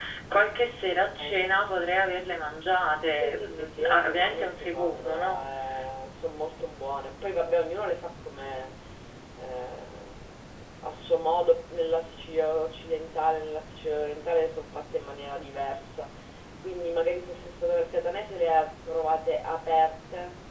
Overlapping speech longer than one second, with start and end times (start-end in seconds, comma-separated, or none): 3.2-5.5